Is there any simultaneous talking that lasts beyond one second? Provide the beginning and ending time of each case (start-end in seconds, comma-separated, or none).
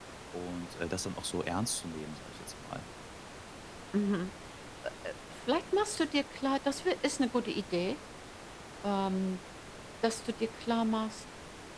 none